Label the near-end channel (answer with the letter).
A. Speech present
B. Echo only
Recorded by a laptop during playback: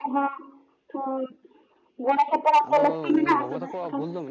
A